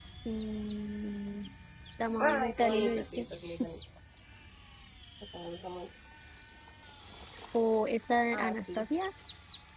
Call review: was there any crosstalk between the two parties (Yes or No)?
Yes